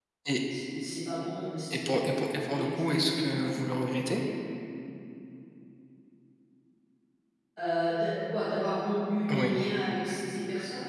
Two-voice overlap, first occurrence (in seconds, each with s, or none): 1.7 s